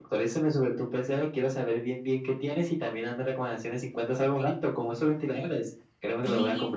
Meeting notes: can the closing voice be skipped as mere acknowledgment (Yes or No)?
No